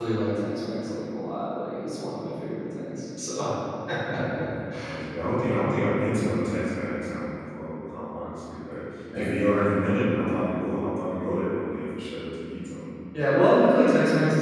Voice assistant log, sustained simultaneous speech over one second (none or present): none